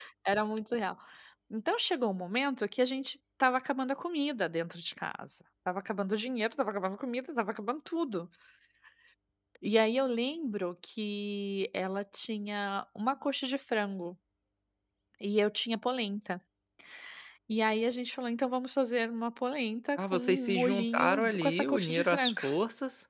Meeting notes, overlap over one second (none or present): present